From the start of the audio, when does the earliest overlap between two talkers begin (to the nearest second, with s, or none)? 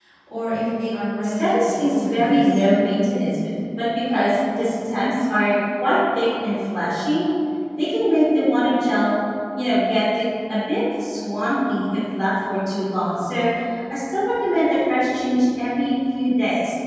1 s